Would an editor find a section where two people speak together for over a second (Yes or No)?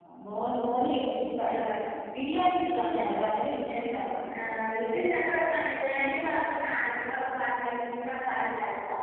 No